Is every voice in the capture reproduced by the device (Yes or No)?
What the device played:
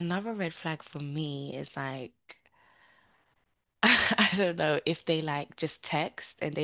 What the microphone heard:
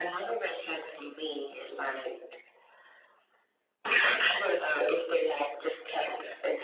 Yes